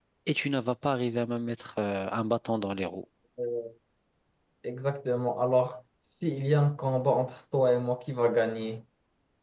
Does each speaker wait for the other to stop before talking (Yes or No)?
Yes